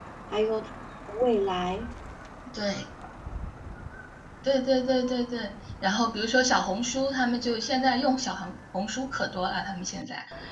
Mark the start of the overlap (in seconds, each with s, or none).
none